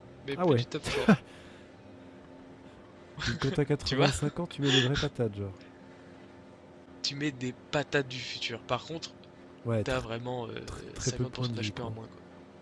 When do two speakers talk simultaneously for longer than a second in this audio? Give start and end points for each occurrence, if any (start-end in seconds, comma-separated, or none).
10.7-12.0